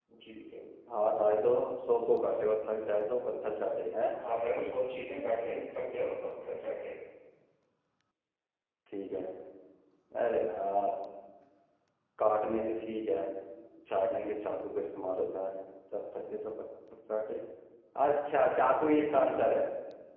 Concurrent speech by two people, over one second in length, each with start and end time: none

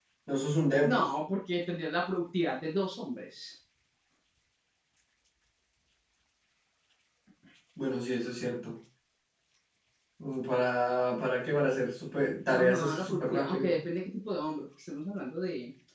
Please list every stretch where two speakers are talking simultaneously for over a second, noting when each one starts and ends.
12.5-13.8

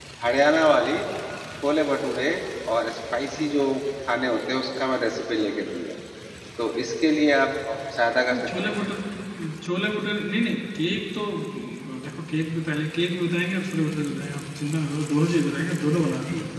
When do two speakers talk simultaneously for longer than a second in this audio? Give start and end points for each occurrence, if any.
none

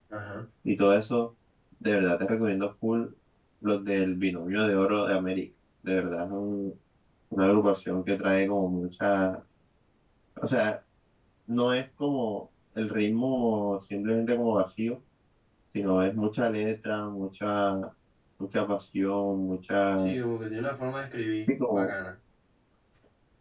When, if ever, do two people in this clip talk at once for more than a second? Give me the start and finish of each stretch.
none

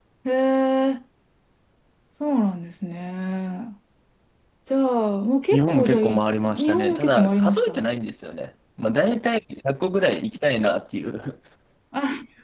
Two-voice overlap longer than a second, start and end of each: 5.5-7.9

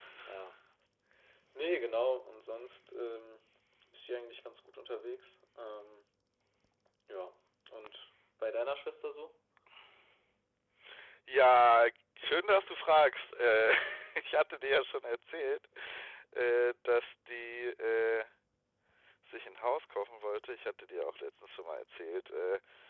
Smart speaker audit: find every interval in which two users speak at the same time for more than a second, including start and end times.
none

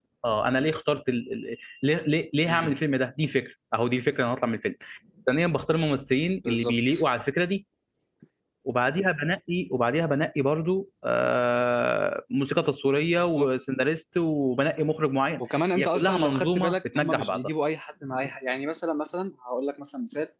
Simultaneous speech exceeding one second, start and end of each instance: 15.8-17.5

